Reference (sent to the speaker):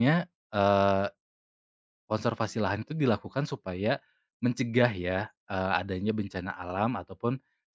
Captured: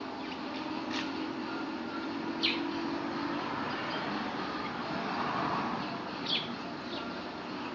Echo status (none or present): none